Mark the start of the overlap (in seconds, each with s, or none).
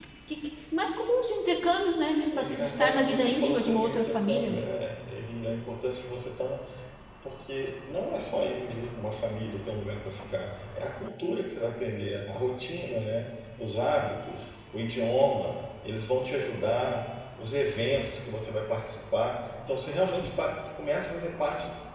2.4 s